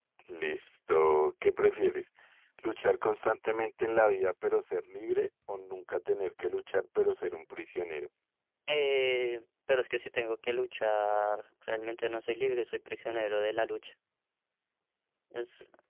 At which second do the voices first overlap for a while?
none

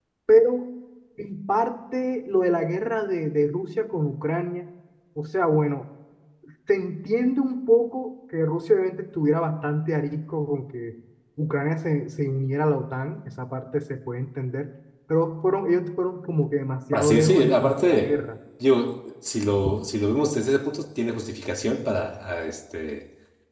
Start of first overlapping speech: 16.9 s

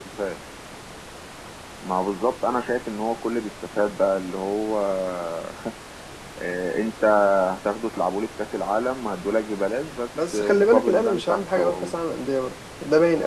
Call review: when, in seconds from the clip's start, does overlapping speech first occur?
10.2 s

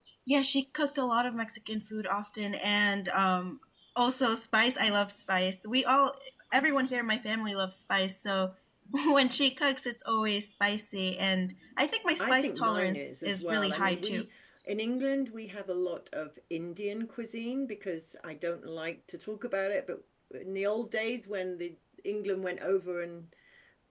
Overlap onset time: 12.2 s

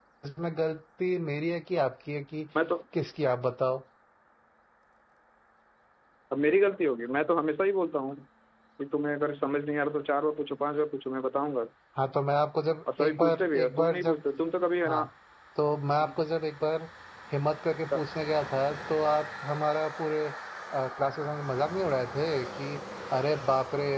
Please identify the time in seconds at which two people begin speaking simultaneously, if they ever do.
12.9 s

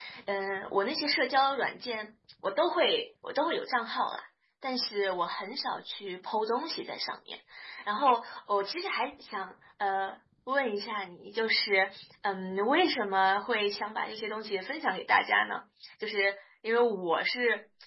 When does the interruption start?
none

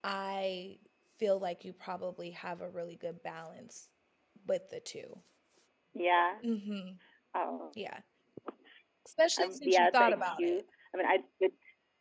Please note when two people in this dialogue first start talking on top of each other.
9.4 s

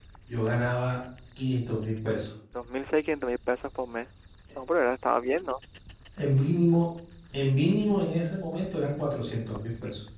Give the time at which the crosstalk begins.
none

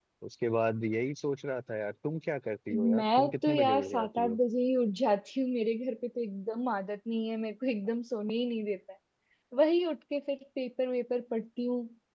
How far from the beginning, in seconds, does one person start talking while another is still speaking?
3.0 s

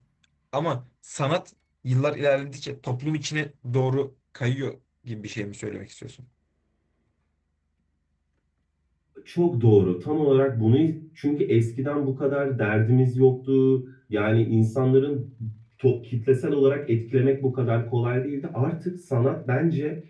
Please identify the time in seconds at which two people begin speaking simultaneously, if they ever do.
none

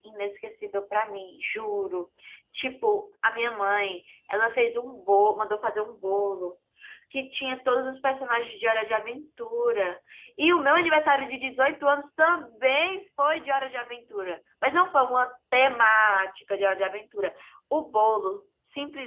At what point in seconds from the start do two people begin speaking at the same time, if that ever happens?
none

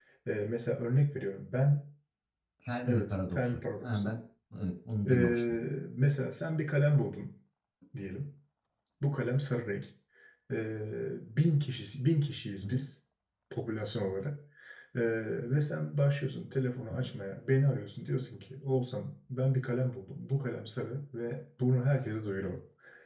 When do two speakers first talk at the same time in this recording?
2.9 s

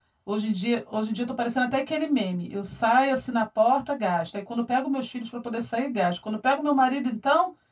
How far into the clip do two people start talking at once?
none

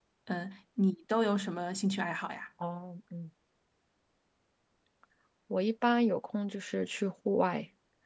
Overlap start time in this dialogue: none

